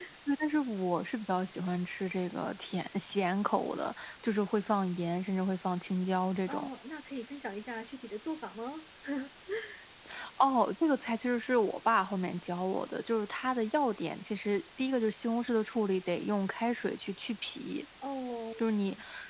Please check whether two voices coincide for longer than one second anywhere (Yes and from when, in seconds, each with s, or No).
No